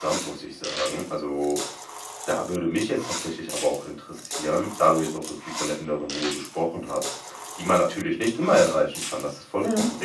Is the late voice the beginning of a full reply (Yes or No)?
No